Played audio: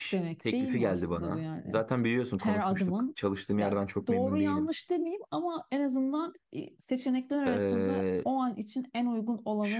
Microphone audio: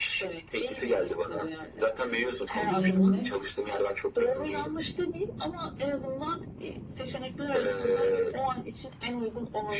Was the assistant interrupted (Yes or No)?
Yes